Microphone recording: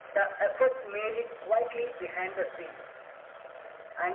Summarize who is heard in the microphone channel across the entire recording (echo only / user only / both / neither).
echo only